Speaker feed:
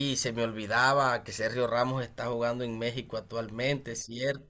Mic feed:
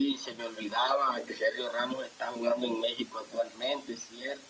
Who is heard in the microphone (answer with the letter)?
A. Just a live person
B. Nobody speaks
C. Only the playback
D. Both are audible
C